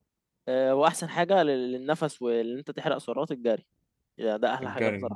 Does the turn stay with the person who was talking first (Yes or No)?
Yes